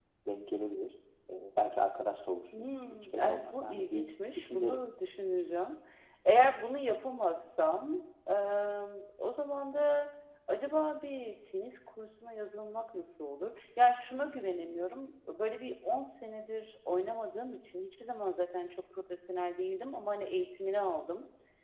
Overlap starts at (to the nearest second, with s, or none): 3 s